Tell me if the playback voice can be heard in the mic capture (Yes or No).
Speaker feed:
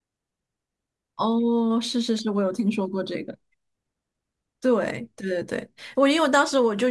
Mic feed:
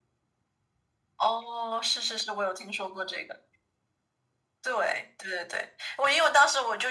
Yes